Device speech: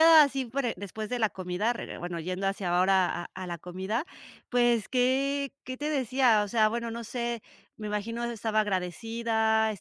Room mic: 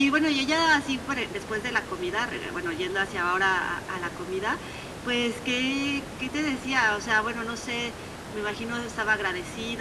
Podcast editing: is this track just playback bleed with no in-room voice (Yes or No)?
Yes